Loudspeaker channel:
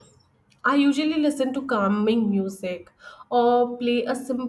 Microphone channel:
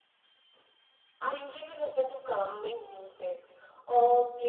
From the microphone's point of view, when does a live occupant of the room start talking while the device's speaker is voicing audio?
none

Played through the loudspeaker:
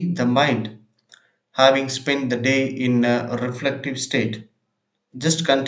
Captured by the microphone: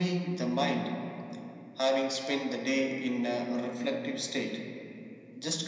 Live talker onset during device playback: none

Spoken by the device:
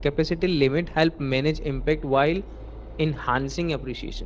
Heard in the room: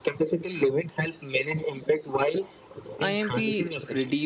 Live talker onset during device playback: 3 s

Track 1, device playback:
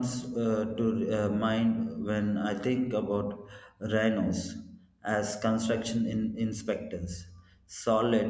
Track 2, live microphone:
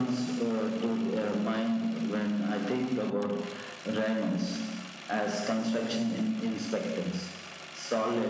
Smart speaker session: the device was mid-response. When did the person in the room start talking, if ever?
none

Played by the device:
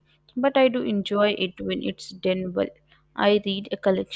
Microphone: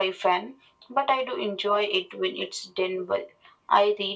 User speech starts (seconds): none

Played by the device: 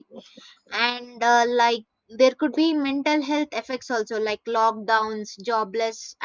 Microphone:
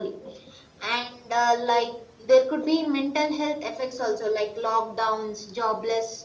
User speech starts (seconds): none

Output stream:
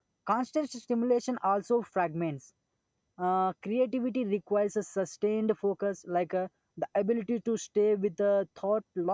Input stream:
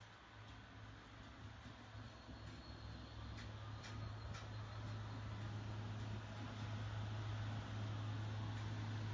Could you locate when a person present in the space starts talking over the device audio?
none

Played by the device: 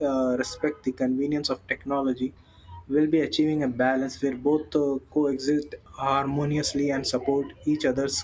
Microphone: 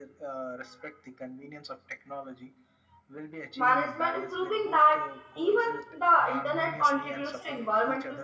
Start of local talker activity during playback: 4 s

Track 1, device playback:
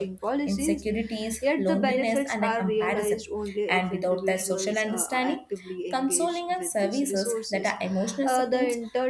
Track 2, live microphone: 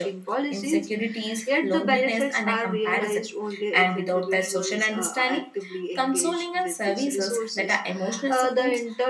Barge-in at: none

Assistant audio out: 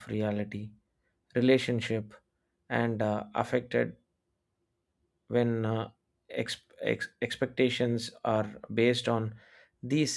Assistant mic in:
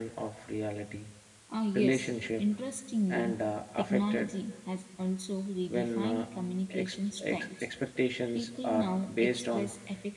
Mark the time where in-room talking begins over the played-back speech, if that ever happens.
1 s

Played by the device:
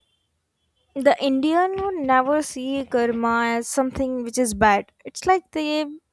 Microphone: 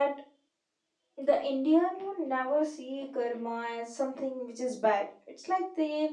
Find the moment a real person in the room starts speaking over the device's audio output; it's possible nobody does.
none

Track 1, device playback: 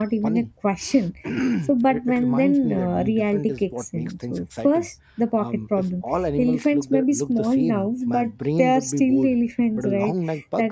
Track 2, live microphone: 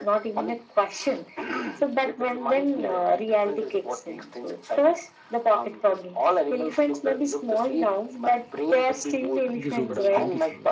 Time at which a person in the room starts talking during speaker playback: 9 s

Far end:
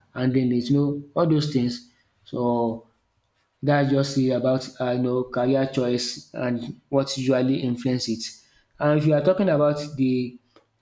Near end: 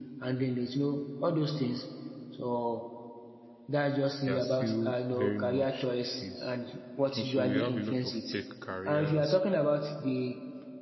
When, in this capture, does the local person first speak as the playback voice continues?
4 s

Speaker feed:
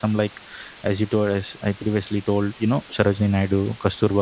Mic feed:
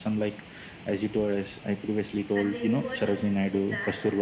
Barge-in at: 2 s

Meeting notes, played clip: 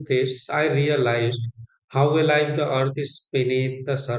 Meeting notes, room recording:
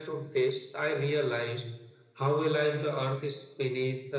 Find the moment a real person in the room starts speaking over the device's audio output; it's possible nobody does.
none

